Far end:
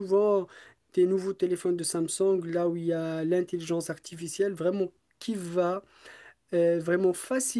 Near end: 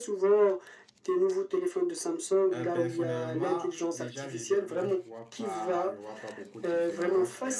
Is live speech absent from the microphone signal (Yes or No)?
No